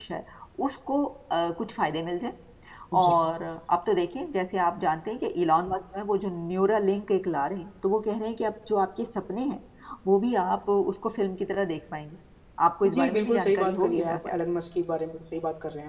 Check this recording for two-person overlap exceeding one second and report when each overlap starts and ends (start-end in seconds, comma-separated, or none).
12.9-14.4